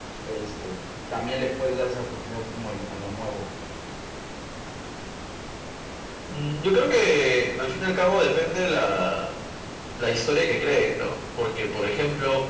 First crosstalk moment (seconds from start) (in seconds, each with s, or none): none